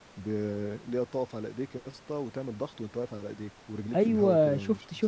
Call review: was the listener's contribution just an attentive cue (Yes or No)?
No